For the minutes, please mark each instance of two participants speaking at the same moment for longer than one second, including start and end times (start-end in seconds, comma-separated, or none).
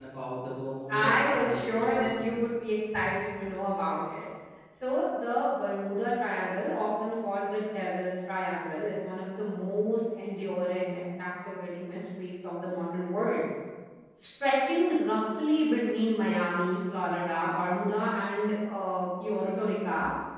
0.9-2.4